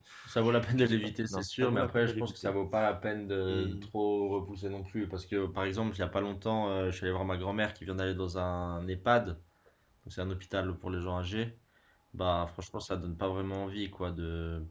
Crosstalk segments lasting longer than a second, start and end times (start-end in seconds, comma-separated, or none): 0.7-2.5